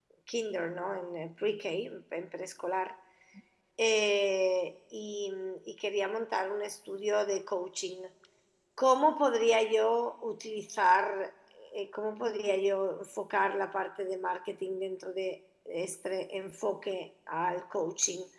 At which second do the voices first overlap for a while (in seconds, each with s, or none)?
none